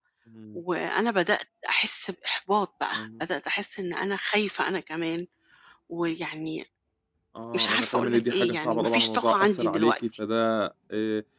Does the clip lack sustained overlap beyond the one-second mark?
No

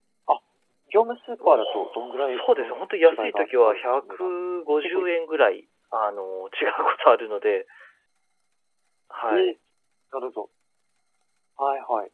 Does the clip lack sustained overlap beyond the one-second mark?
No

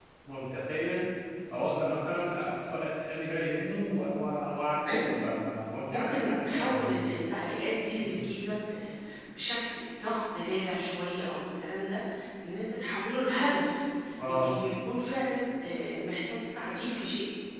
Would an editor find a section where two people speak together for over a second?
Yes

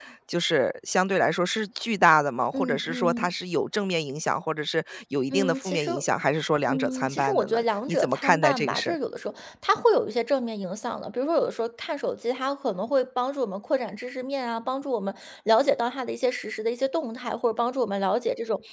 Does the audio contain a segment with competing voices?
Yes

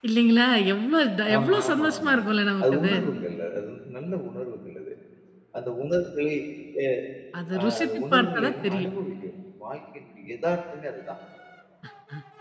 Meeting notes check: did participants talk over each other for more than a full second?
Yes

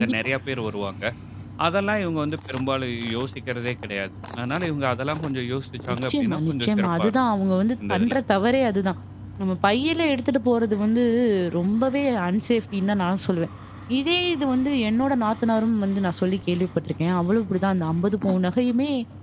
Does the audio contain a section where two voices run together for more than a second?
Yes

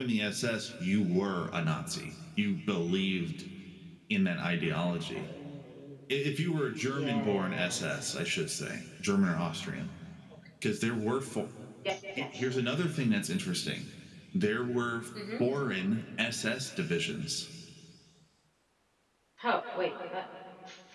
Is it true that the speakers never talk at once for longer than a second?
No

